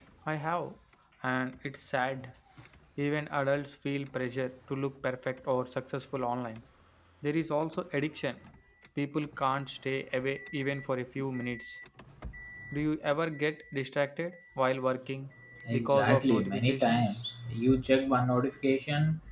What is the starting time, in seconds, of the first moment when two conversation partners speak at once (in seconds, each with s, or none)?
15.7 s